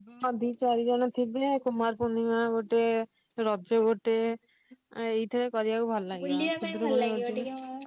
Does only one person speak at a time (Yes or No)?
No